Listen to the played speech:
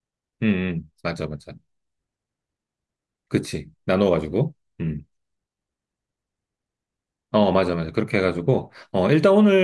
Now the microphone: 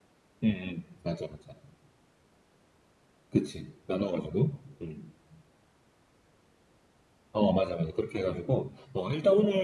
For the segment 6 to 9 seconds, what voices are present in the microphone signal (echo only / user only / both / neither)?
echo only